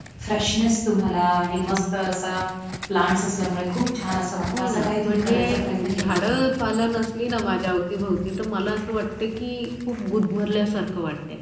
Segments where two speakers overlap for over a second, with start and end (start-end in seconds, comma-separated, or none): 4.6-6.3